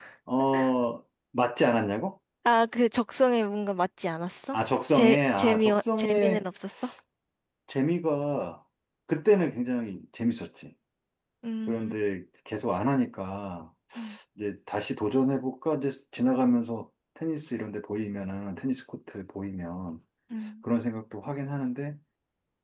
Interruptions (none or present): present